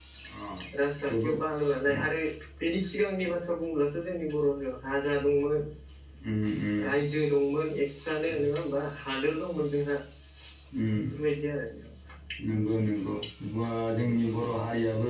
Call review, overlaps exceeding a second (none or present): none